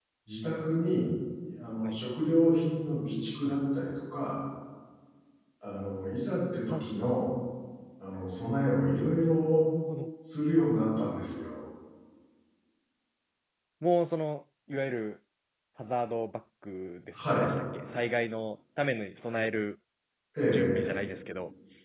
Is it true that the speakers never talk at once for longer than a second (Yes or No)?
Yes